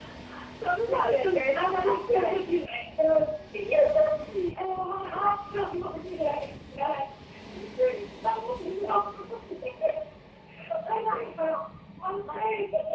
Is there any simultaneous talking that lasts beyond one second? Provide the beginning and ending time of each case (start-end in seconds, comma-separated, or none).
0.9-2.5